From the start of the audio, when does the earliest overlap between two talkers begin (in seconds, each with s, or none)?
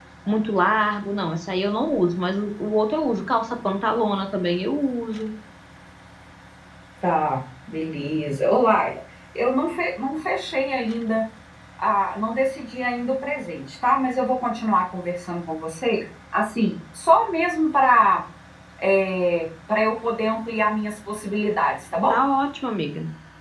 none